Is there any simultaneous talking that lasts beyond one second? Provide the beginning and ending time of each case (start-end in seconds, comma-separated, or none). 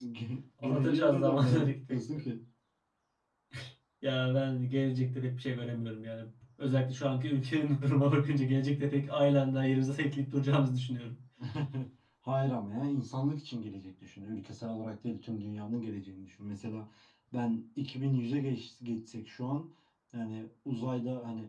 0.6-2.2